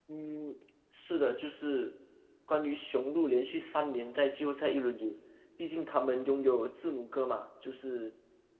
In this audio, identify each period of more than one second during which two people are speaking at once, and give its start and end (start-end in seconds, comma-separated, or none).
none